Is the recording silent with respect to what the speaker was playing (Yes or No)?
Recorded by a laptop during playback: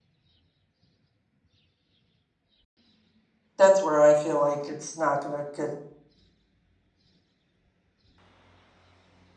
Yes